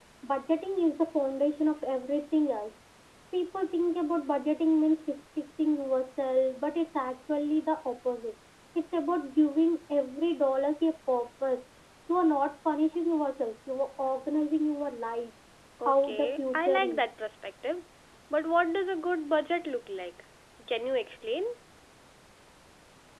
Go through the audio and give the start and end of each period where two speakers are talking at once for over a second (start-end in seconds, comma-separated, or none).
15.8-17.1